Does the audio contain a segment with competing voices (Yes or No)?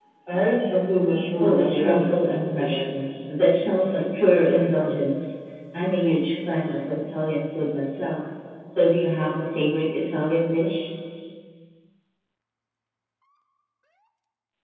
Yes